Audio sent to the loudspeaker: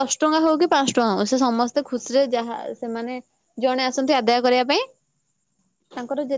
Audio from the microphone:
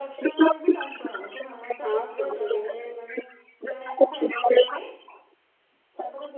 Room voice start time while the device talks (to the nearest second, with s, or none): 2 s